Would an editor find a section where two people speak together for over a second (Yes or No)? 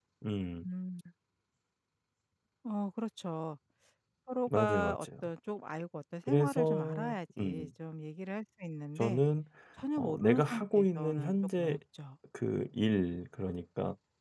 Yes